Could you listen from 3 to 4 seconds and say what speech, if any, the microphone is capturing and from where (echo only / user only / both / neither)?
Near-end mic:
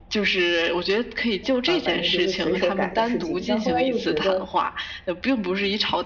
both